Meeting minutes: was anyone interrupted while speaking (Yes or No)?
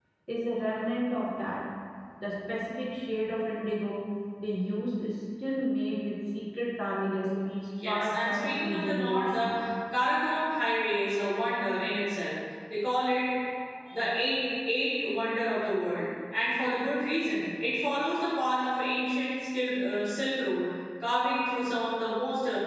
Yes